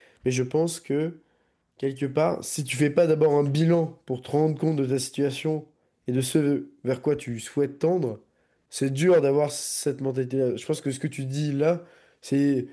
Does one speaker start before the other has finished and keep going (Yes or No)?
No